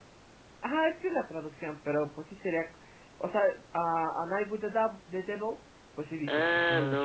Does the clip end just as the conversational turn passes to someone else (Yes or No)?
Yes